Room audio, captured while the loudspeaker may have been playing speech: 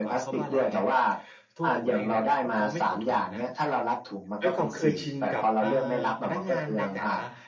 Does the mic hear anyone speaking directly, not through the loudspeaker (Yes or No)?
Yes